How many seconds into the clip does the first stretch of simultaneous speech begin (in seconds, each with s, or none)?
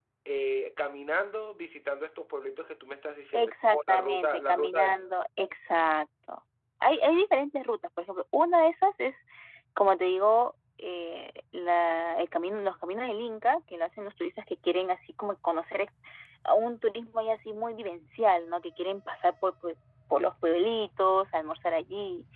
3.3 s